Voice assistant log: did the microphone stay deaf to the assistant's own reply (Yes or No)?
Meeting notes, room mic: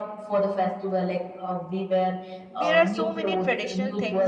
No